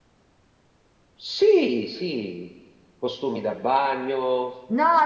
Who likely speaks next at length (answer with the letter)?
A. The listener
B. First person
A